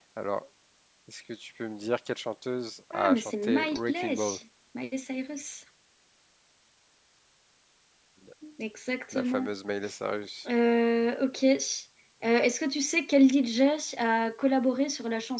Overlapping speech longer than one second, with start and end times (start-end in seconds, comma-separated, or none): 2.9-4.1